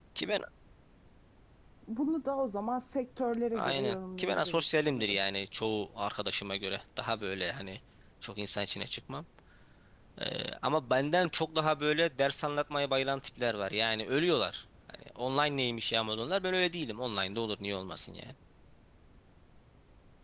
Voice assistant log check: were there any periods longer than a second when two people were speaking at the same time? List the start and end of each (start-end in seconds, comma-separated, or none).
3.5-5.2